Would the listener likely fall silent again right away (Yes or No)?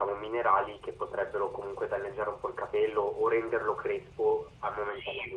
No